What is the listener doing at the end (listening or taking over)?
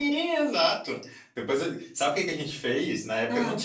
listening